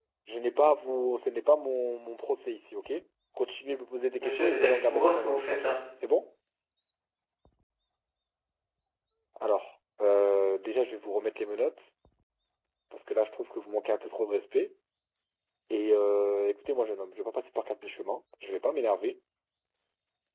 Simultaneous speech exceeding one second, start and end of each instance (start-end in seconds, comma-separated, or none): 4.2-5.7